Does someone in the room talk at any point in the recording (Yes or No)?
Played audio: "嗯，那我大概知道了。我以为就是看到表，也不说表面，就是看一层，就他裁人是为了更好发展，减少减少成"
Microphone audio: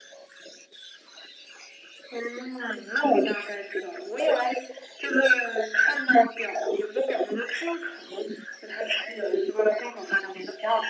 No